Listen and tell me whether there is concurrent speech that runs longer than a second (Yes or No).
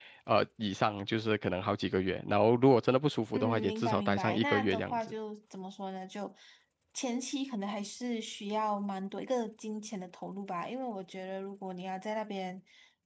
Yes